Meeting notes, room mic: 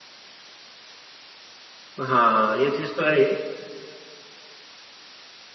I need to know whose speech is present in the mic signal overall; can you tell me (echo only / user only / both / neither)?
user only